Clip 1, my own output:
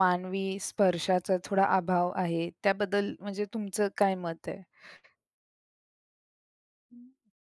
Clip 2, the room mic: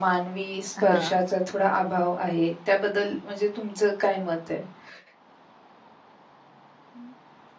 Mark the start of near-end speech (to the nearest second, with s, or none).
1 s